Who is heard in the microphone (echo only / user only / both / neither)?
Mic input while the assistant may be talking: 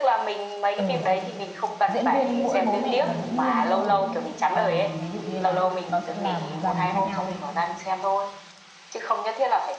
both